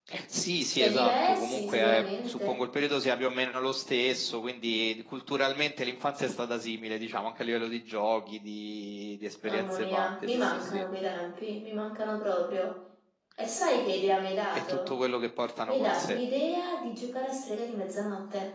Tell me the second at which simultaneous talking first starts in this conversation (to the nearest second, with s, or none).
1 s